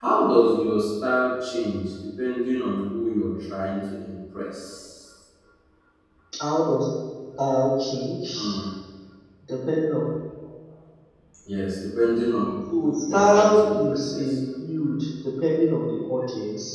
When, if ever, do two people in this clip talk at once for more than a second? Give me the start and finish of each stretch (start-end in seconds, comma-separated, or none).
12.7-14.4